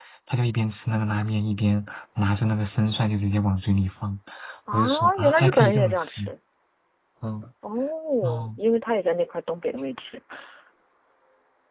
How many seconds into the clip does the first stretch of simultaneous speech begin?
5 s

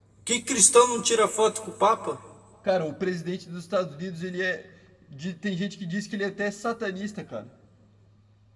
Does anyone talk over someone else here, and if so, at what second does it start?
none

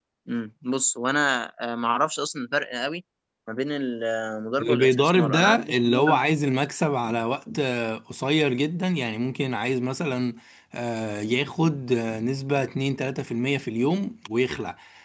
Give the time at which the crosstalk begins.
5 s

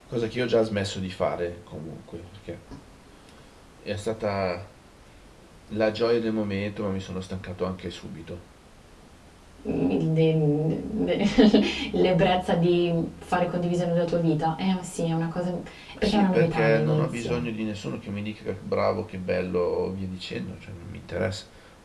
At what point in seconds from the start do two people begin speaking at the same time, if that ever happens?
16 s

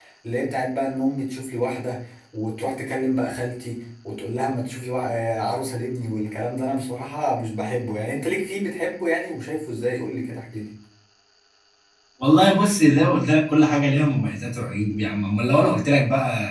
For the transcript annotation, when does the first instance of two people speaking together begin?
none

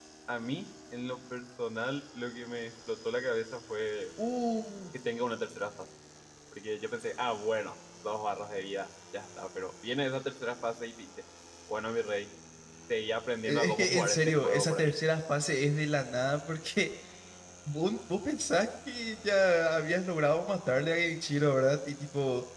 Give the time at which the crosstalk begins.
13 s

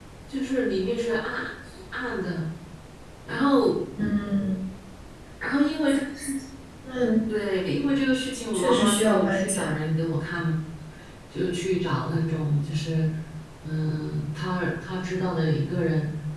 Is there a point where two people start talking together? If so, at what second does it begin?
9 s

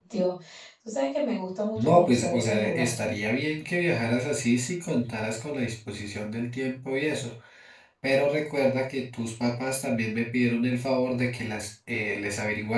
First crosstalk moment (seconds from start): 2 s

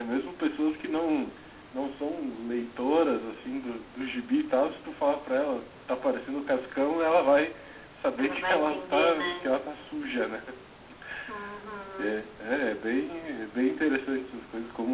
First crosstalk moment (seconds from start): 8 s

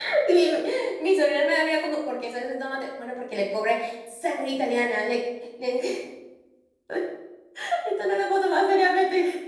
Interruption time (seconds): none

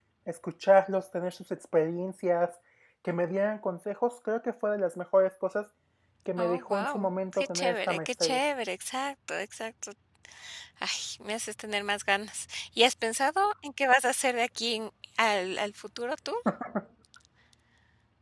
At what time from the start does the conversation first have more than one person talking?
6 s

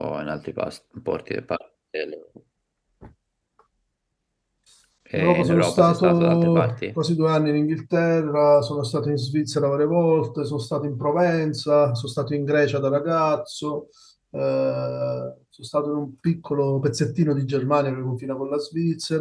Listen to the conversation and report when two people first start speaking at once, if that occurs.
5 s

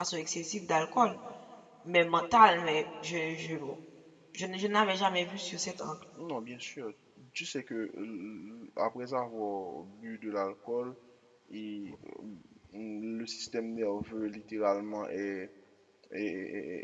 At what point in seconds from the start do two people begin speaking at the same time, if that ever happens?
none

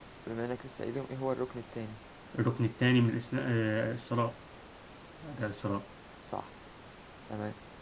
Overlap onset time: none

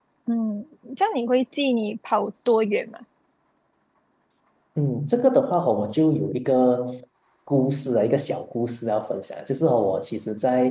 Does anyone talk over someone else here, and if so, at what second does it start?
none

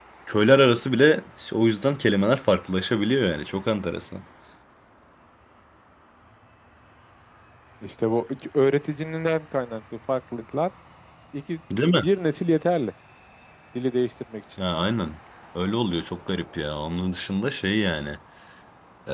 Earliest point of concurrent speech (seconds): none

